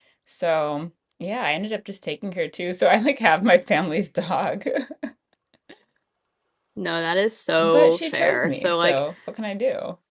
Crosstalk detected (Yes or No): Yes